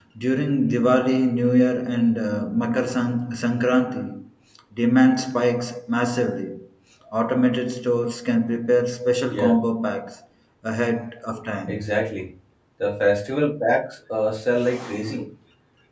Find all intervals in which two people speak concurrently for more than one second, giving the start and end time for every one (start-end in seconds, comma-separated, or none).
none